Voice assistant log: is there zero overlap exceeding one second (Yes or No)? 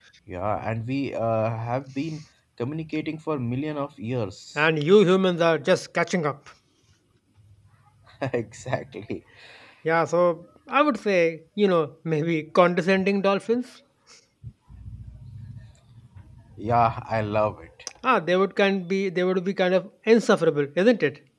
Yes